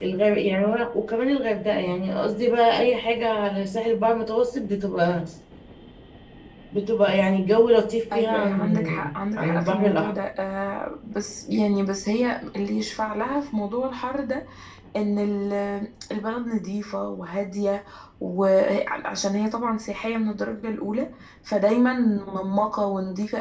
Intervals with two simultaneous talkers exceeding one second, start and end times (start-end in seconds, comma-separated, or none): 8.1-10.1